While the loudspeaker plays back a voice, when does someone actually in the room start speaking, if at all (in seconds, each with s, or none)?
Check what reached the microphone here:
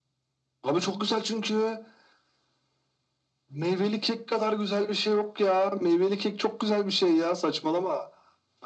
none